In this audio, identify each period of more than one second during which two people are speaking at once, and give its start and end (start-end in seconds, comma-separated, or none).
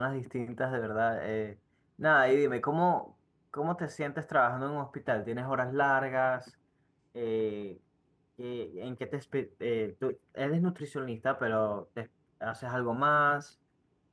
none